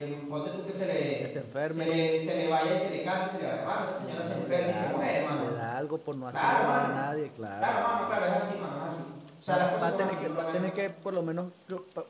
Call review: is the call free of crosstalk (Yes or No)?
No